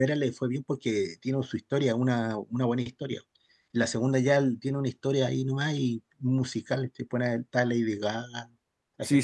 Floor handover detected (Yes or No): Yes